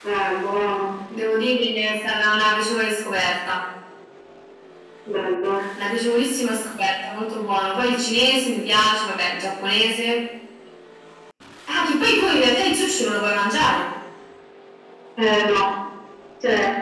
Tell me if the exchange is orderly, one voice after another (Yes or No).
Yes